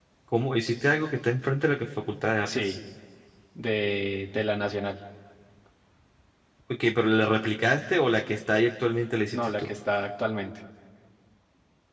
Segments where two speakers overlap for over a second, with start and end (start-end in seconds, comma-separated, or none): none